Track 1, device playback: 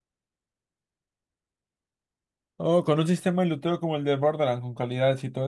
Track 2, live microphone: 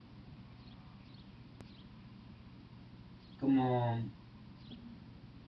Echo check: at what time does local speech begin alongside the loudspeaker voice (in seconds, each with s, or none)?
3.4 s